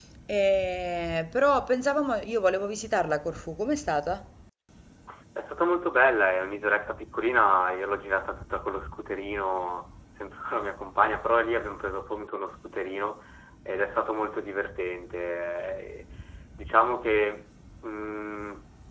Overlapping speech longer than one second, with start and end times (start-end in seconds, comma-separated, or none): none